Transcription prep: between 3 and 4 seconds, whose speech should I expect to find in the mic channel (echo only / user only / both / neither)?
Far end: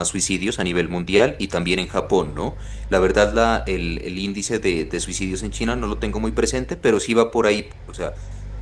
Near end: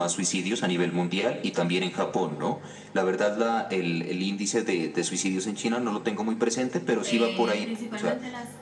echo only